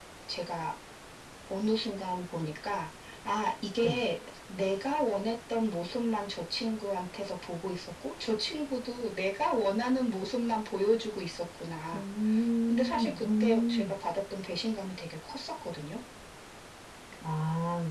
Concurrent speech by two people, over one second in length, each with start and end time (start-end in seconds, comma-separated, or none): 12.7-13.9